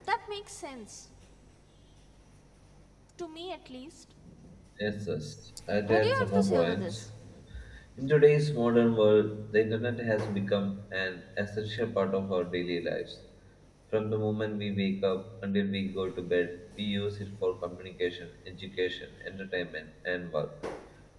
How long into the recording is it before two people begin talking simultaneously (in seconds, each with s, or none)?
5.8 s